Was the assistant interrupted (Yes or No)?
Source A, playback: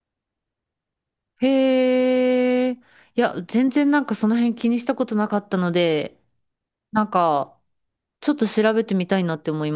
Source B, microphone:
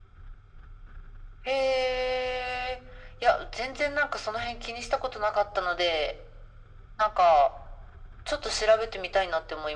No